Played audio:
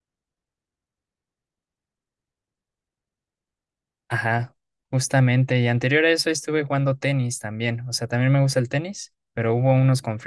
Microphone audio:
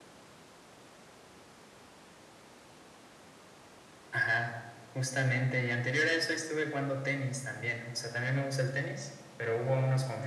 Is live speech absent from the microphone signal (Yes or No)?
Yes